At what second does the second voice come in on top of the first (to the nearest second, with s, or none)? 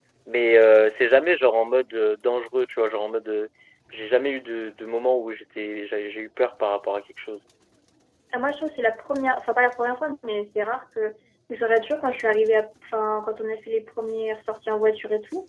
none